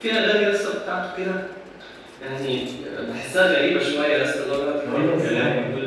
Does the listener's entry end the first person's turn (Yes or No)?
Yes